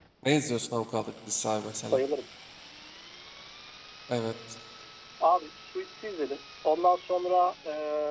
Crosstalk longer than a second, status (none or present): none